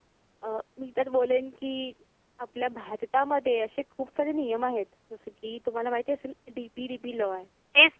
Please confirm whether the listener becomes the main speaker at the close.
Yes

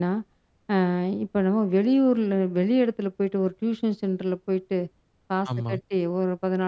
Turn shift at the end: No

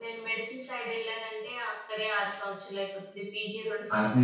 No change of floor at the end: No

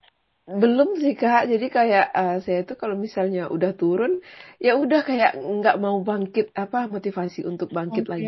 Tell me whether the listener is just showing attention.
Yes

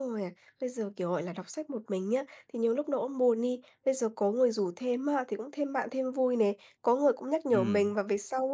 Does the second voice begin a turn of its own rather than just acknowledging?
No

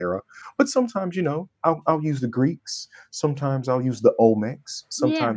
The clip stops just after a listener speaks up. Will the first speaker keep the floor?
Yes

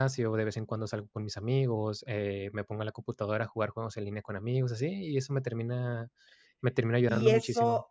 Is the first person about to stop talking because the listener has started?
Yes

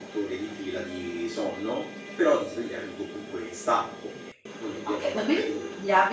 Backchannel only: No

